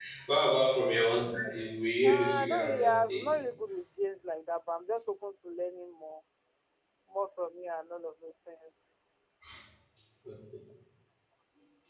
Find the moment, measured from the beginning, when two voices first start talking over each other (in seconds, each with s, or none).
2.0 s